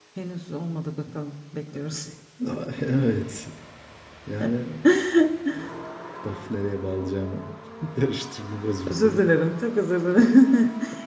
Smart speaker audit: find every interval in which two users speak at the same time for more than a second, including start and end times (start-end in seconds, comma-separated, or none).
none